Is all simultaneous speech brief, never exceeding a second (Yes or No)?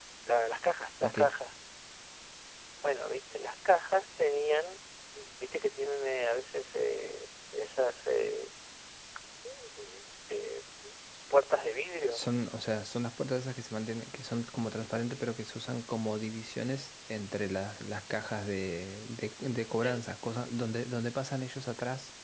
Yes